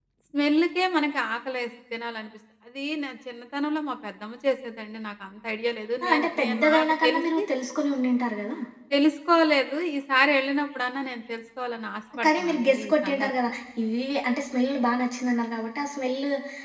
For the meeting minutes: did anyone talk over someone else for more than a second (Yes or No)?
Yes